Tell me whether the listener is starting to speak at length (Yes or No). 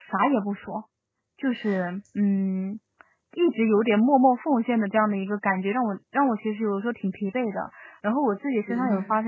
No